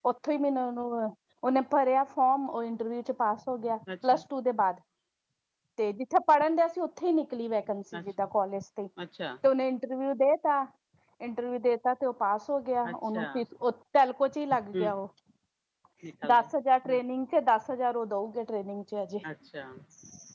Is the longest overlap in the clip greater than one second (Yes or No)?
No